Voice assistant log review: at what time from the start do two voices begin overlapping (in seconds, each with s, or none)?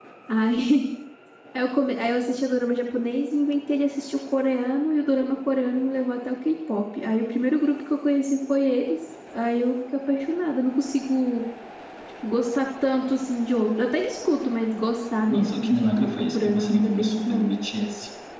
15.3 s